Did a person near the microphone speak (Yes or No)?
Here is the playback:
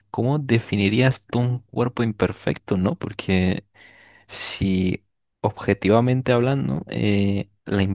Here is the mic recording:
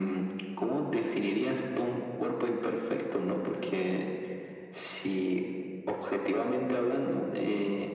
No